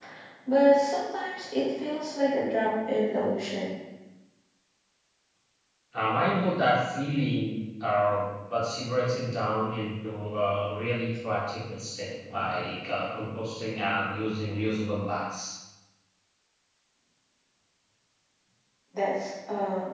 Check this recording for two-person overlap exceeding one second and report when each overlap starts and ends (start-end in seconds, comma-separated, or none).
none